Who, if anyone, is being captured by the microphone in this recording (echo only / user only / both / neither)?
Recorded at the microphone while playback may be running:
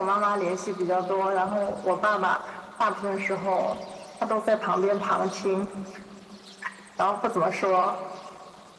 echo only